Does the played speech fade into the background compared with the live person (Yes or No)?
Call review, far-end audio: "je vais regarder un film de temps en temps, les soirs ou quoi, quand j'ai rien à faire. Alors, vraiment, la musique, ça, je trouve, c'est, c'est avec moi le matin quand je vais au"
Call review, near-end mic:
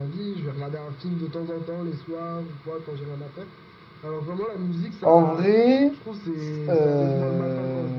Yes